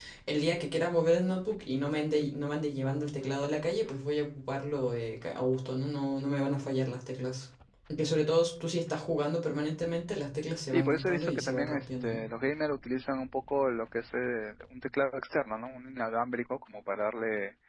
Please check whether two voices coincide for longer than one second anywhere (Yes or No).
Yes